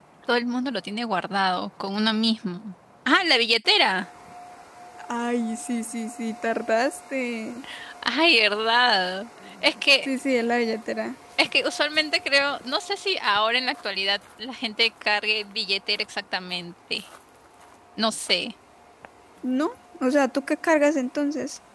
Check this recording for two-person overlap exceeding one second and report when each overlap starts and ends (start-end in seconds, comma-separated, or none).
none